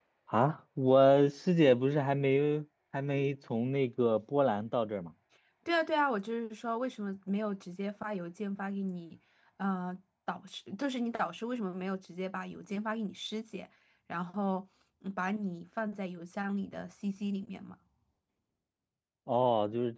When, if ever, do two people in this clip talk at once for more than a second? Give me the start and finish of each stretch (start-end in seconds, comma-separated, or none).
none